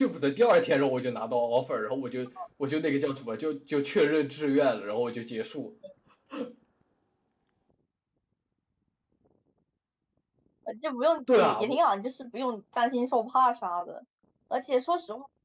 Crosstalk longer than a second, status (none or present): none